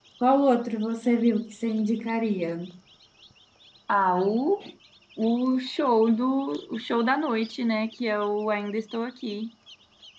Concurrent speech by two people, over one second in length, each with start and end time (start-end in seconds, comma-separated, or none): none